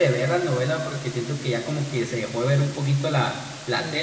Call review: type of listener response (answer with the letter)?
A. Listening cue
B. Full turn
B